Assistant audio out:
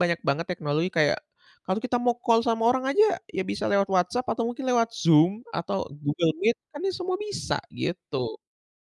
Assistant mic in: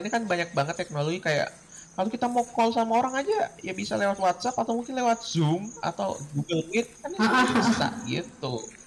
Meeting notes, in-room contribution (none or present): present